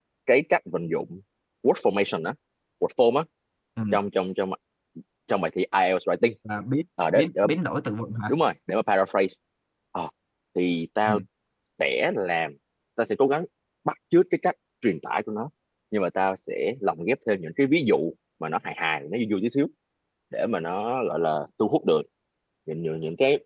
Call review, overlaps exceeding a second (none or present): none